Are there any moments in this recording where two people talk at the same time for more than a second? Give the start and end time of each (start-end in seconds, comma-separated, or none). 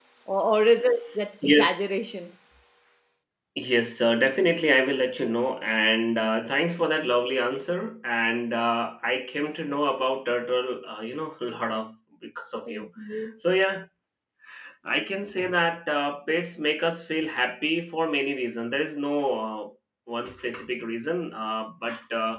none